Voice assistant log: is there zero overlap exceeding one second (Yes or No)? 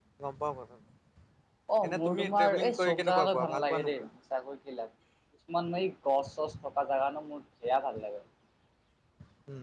No